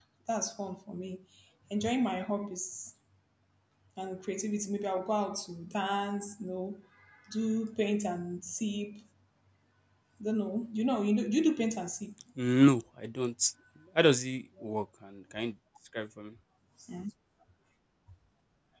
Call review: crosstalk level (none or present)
none